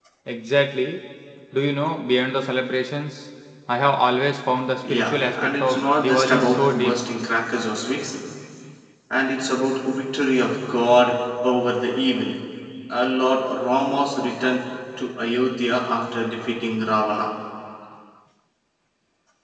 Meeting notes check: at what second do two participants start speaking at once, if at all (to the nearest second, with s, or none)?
5 s